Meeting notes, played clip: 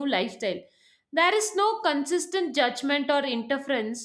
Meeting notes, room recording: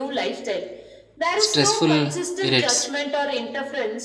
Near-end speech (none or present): present